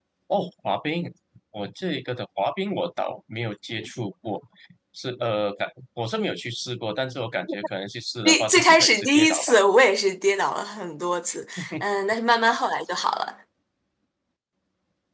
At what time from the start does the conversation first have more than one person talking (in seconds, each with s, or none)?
8.2 s